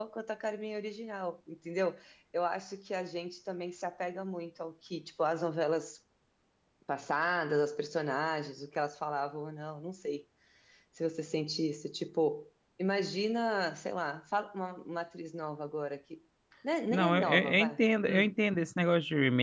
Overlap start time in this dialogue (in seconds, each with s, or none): 16.9 s